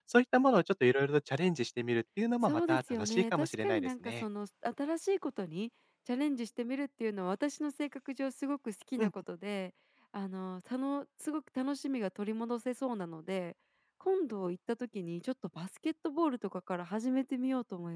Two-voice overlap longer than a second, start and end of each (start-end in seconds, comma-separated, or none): 2.4-4.2